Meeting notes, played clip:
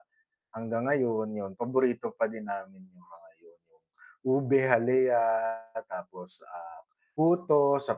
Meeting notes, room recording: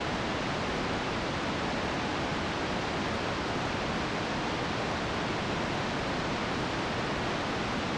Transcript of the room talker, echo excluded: none

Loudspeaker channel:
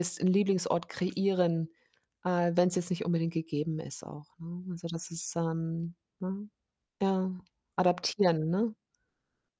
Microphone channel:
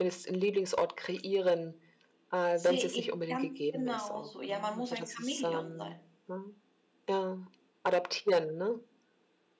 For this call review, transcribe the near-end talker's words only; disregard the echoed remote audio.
Sehe ich ganz genauso. Ja, man muss ein Chamäleon sein.

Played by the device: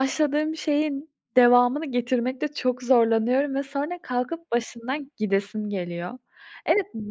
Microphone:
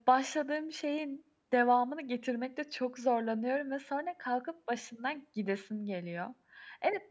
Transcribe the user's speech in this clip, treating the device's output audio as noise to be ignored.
none

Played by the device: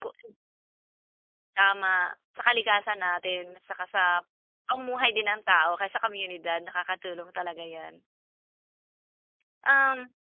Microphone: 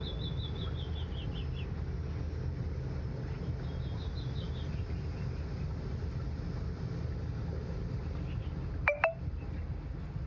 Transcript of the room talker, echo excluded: none

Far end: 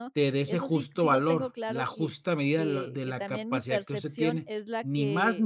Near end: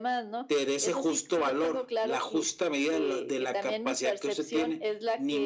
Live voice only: none

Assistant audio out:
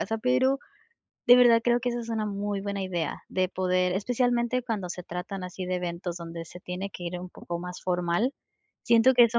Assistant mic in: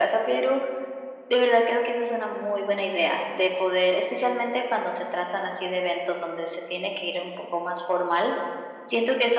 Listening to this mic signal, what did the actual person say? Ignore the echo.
none

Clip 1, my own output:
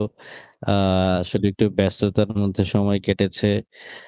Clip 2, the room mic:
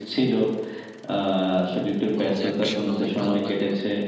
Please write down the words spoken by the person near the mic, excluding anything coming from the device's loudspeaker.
হুম, যাক শুনে অনেক ভালো লাগলো।

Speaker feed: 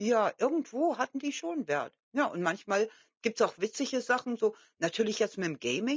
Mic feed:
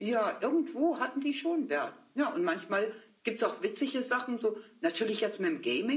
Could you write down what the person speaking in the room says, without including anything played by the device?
none

